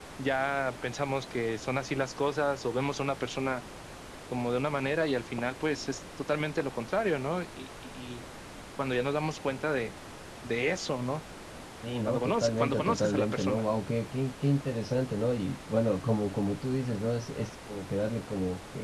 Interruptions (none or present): present